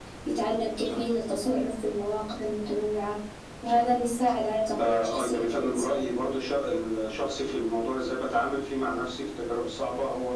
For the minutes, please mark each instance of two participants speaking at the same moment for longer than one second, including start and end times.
4.8-6.1

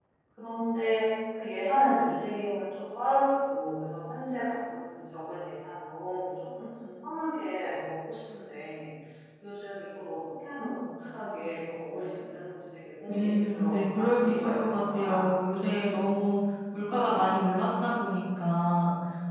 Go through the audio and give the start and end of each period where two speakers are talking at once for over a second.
13.1-15.2

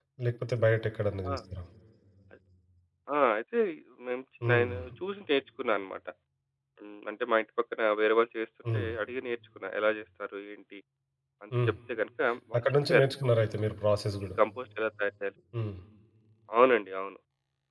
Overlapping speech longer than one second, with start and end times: none

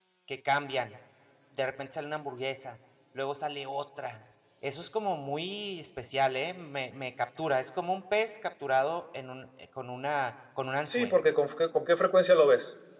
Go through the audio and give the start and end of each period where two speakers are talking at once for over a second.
none

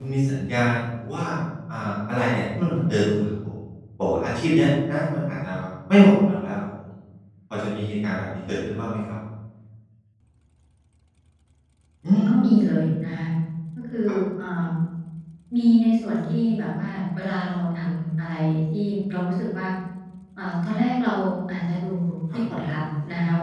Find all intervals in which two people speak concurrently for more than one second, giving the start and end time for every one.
none

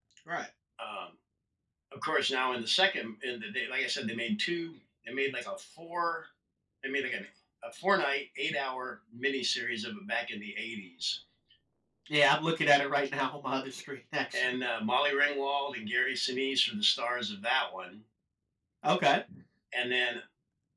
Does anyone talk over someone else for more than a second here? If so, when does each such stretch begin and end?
none

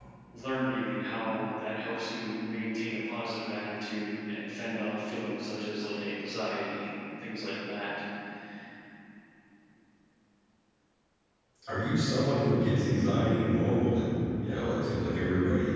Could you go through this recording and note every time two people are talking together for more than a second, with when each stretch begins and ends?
none

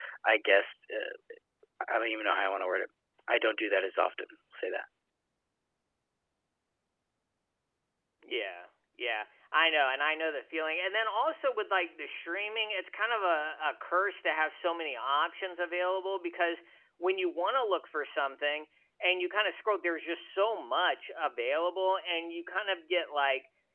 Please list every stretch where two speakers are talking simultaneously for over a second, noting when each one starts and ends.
none

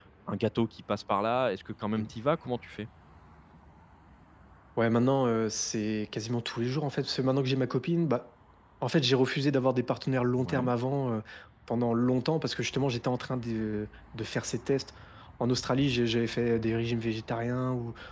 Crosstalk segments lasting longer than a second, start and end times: none

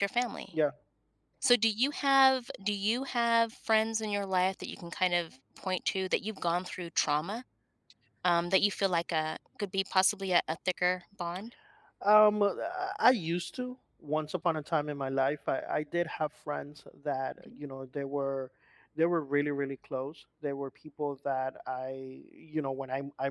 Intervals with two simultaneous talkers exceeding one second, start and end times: none

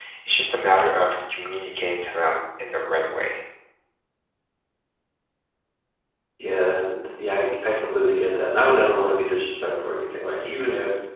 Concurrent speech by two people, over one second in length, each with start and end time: none

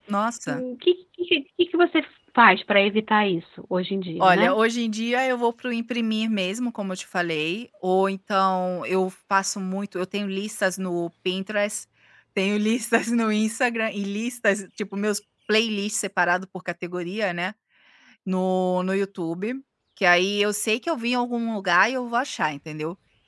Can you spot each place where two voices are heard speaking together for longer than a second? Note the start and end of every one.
none

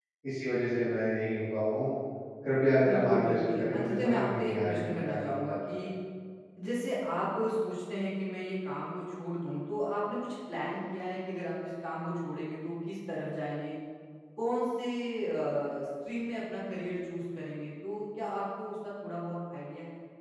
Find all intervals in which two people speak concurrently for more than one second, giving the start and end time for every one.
2.8-5.7

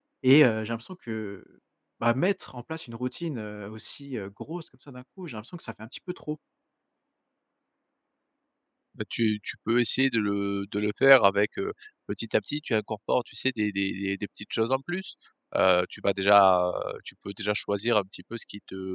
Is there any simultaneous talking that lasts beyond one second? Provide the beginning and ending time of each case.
none

